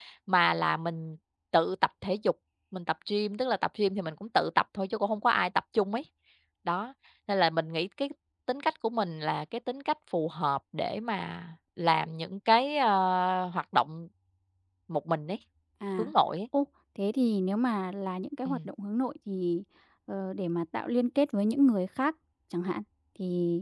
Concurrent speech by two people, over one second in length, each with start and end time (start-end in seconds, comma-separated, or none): none